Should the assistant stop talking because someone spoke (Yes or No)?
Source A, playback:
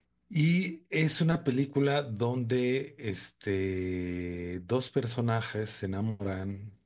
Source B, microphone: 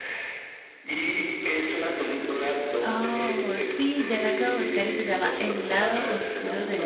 Yes